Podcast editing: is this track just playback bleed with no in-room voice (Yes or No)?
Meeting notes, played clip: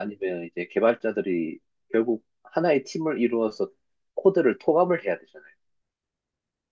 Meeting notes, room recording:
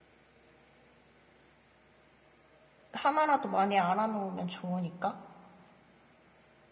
No